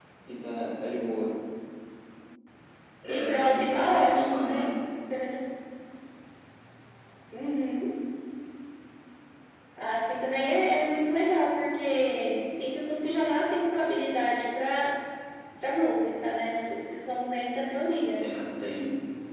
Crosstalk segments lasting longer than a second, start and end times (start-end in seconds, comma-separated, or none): 3.0-4.7